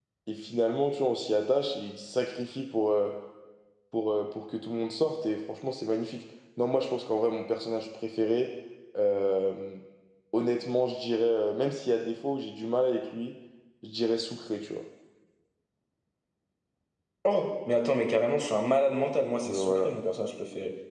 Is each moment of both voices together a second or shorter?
Yes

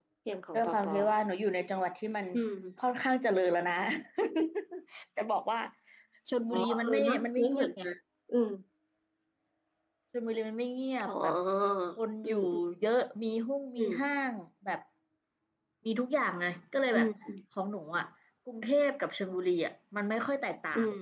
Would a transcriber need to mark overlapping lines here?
Yes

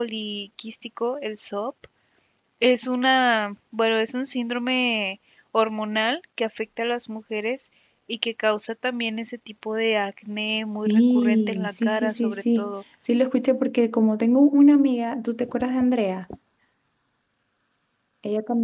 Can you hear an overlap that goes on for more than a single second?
Yes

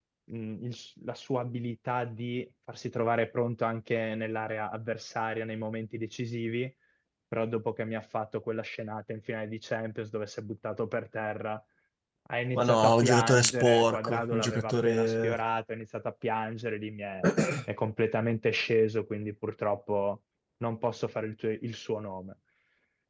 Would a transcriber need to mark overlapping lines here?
Yes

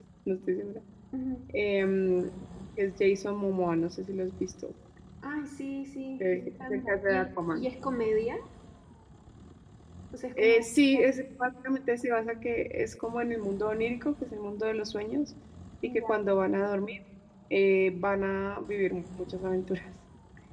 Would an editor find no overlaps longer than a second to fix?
No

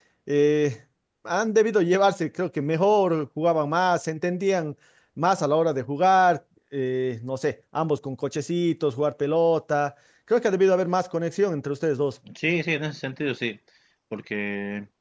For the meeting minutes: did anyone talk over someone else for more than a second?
No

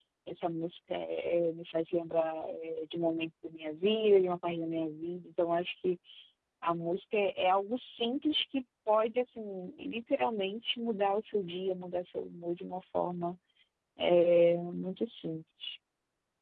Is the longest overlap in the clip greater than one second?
No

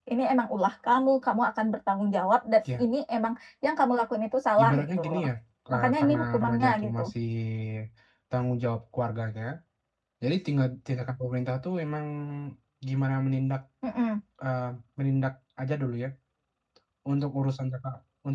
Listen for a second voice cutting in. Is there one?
Yes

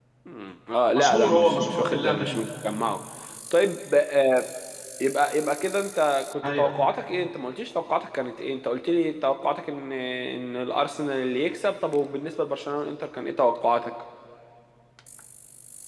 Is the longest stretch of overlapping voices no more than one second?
No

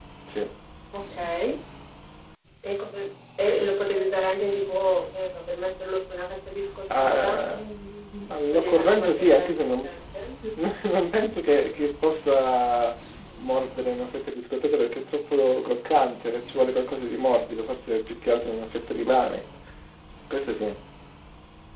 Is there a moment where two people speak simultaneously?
Yes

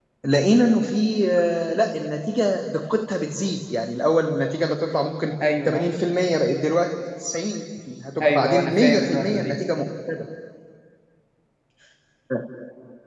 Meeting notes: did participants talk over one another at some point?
Yes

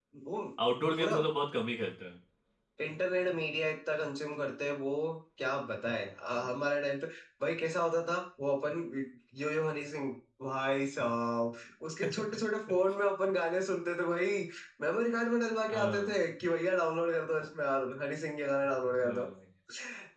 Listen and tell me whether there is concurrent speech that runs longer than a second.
No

